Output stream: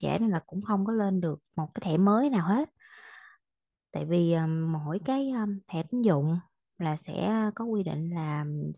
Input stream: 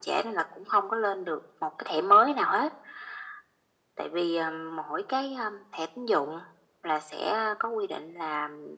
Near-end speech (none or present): none